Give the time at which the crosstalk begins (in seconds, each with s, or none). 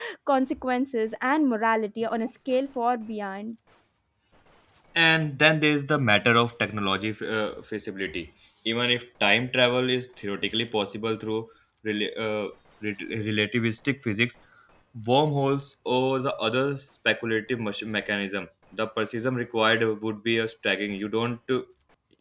none